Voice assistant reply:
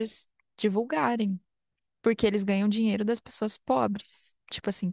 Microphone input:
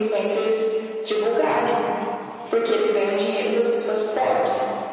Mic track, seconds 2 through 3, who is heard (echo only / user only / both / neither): echo only